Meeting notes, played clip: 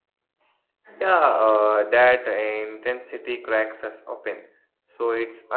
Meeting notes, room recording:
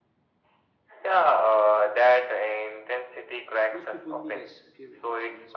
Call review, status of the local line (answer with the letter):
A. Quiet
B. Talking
B